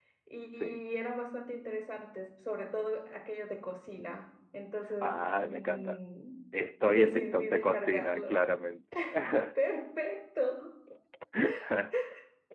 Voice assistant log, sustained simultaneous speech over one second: present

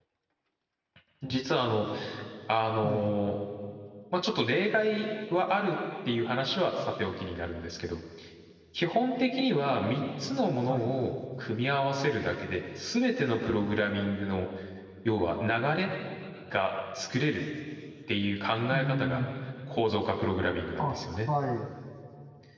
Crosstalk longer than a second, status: none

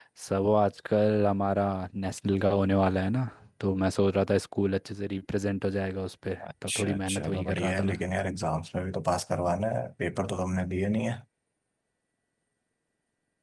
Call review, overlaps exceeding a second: present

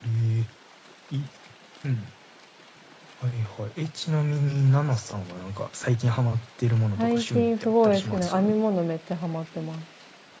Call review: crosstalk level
present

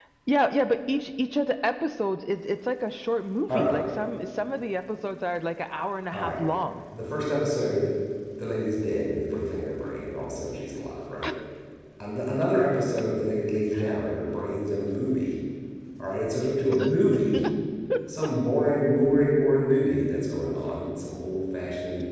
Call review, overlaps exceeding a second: none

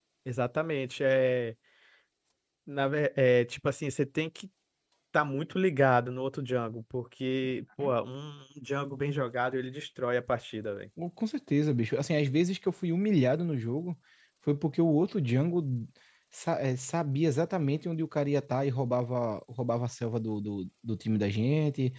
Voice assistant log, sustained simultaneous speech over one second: none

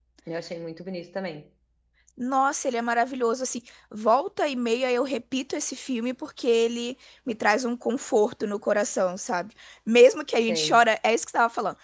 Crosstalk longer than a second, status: none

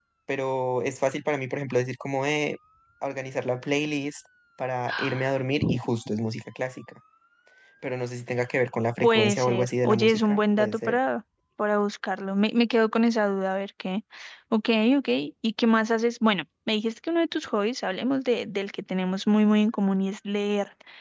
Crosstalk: present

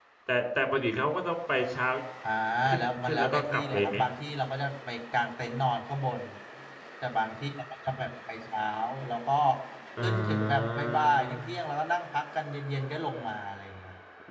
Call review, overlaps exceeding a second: present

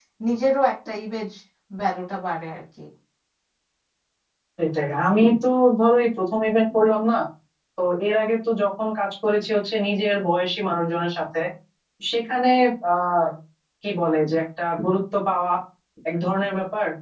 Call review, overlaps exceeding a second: none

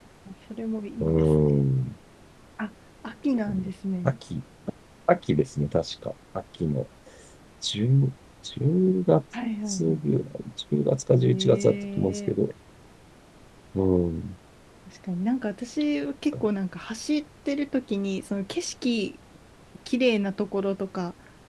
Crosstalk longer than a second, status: present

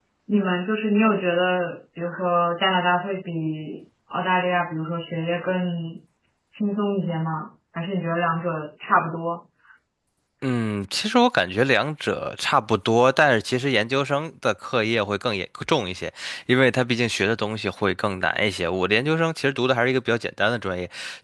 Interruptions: none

